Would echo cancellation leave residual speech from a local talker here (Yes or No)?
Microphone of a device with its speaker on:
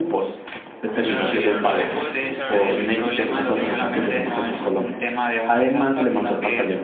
Yes